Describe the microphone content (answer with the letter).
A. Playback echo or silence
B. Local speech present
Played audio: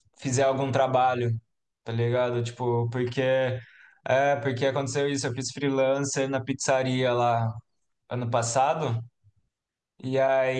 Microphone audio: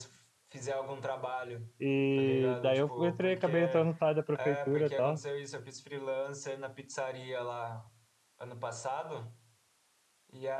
B